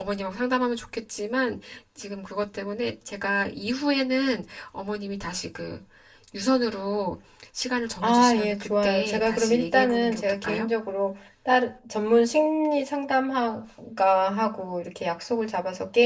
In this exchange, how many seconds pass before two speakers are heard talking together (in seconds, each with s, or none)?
8.0 s